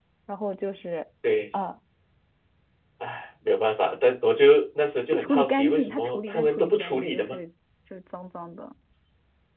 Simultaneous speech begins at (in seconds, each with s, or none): 5.1 s